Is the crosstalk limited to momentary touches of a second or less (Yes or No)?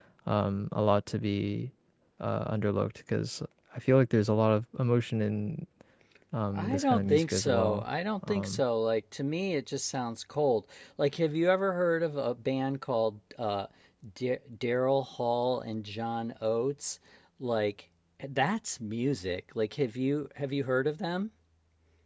No